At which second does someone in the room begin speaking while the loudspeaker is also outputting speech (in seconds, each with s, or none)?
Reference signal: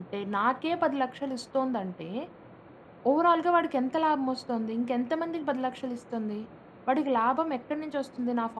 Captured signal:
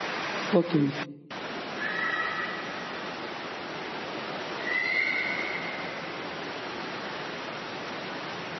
0.6 s